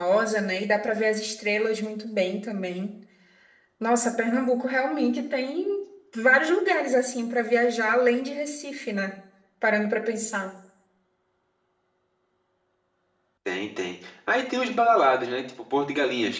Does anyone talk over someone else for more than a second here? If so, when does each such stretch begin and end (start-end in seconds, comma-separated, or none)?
none